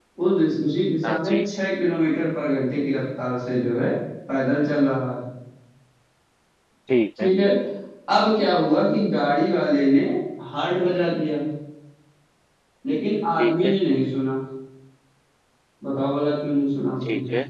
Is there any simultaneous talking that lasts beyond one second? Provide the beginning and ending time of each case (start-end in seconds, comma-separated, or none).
none